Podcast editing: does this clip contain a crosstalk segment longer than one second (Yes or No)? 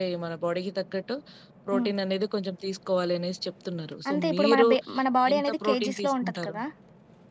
Yes